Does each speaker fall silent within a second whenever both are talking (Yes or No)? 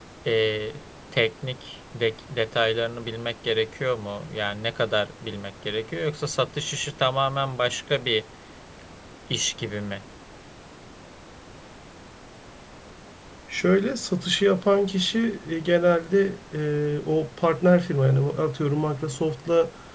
Yes